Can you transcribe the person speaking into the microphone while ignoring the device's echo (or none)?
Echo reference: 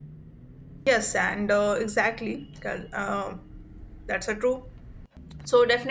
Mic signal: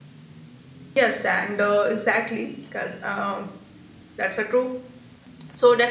none